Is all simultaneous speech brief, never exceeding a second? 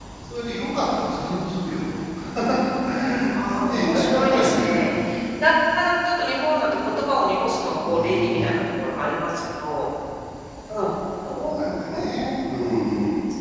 No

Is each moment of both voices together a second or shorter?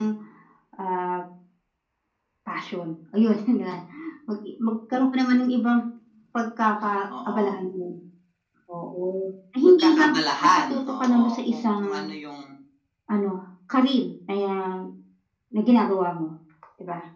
No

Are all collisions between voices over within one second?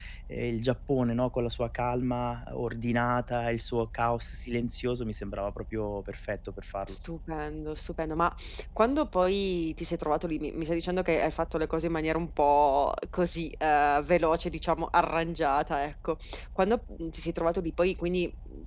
Yes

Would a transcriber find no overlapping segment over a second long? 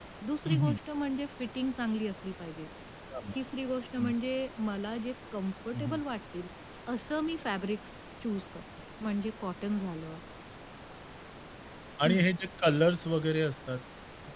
Yes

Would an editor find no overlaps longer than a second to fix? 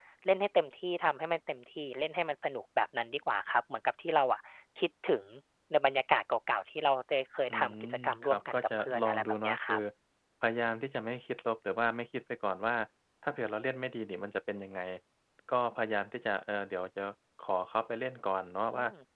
No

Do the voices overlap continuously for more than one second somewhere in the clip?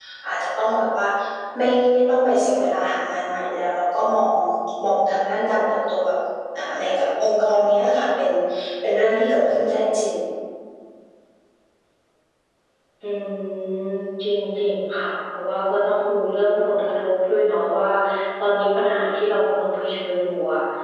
No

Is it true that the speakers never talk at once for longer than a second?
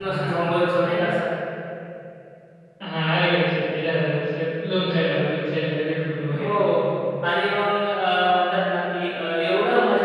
Yes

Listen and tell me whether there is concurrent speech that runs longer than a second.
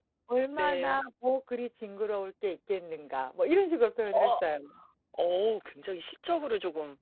No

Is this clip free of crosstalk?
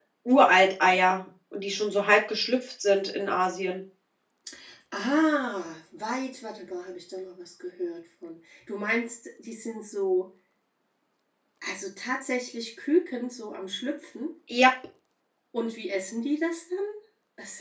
Yes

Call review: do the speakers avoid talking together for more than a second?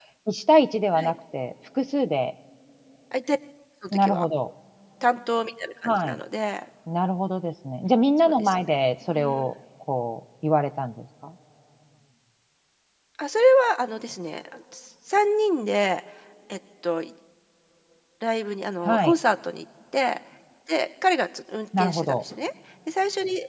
Yes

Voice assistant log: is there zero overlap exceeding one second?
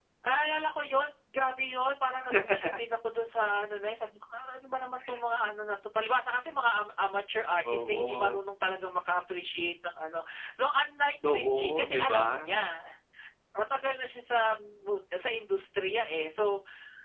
No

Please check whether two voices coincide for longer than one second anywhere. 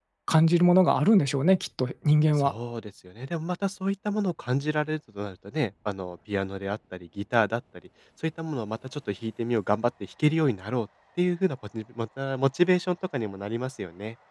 No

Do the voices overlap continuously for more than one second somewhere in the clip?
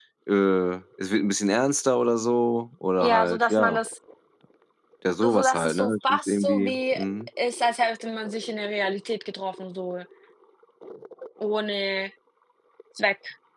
Yes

